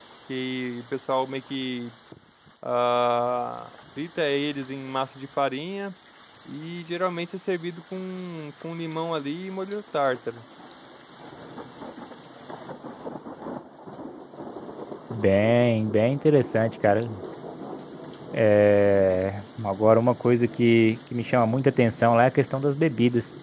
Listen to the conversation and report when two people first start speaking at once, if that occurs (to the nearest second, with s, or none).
none